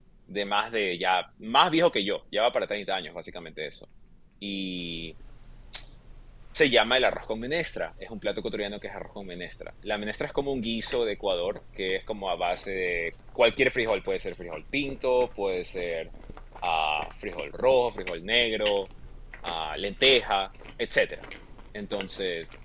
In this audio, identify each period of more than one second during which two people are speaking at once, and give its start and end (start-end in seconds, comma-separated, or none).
none